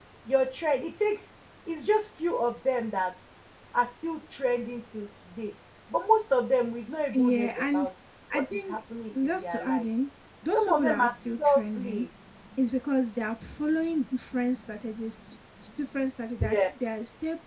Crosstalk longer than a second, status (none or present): present